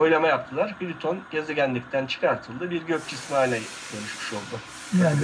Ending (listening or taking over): taking over